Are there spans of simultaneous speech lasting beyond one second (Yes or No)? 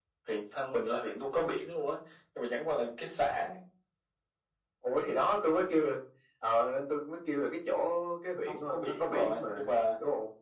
Yes